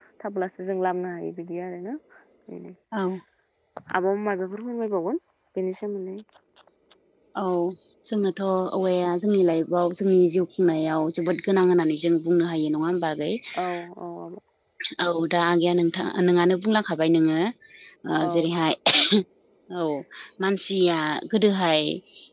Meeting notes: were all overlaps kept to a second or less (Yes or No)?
Yes